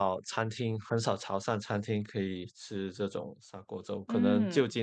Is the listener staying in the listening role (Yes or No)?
Yes